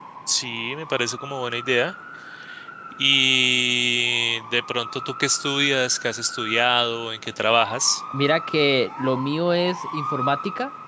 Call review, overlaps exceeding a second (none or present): none